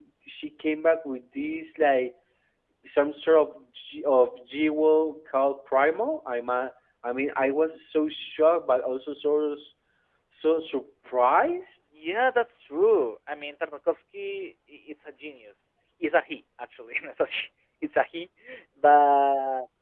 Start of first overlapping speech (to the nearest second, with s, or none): none